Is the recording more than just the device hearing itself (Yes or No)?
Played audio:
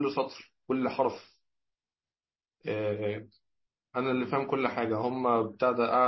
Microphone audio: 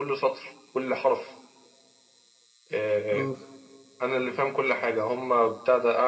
Yes